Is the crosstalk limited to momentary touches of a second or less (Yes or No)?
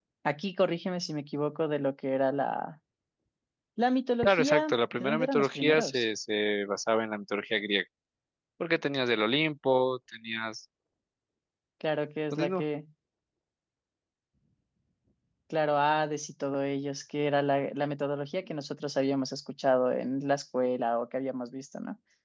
No